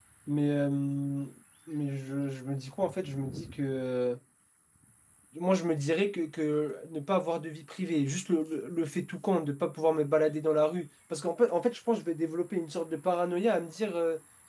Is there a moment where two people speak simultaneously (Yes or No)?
No